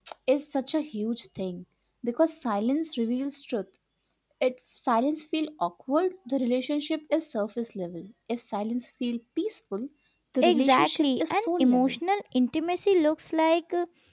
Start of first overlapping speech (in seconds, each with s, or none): 10.4 s